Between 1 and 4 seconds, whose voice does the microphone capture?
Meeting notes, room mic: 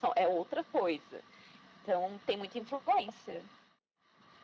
echo only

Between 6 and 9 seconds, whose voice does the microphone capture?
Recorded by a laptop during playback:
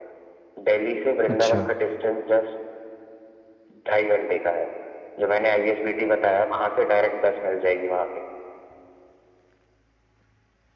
echo only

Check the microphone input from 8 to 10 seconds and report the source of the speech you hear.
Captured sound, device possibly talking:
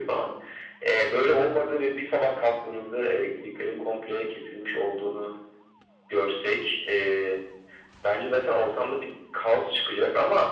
echo only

